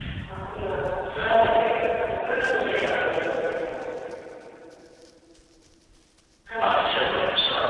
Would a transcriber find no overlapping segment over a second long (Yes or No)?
Yes